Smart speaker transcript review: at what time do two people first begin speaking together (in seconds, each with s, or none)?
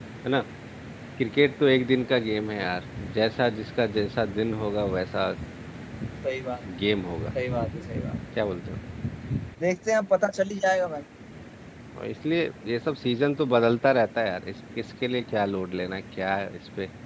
none